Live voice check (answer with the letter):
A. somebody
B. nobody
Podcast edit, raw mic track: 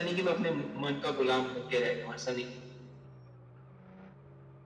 B